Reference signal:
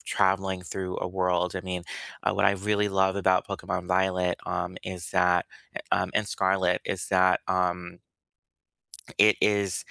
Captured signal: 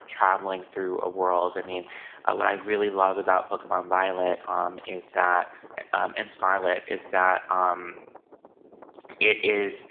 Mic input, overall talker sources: echo only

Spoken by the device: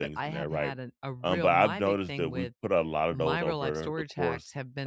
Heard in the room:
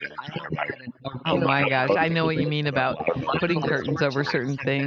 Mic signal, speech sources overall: both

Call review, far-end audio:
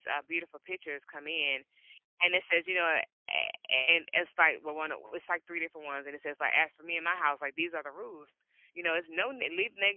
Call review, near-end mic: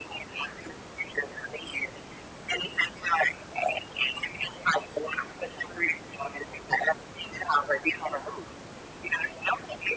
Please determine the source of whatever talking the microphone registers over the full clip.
echo only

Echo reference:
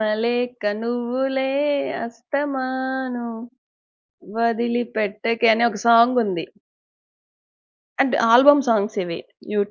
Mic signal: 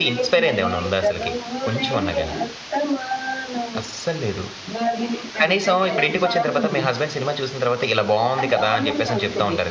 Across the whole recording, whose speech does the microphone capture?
both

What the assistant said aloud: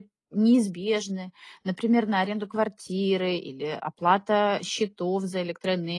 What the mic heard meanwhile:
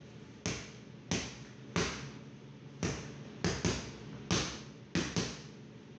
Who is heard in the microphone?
neither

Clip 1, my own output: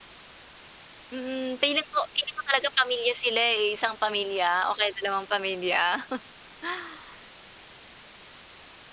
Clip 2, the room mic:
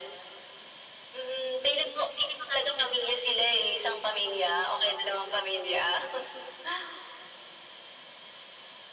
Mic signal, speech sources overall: echo only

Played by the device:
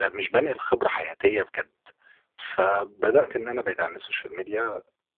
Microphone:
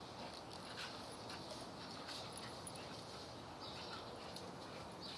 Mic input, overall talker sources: neither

